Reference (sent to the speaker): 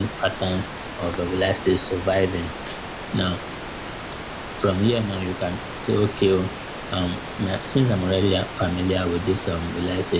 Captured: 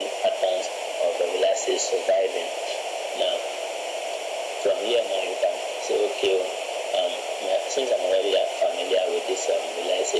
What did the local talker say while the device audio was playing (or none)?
none